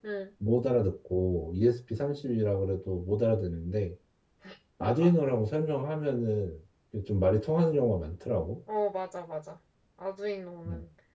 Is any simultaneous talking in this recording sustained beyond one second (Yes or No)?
No